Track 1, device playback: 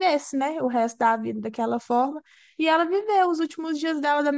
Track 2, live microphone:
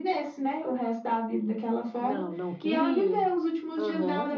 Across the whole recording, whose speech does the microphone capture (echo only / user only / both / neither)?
both